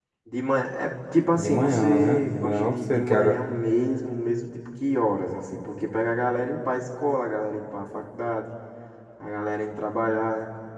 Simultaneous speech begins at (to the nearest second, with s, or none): 1 s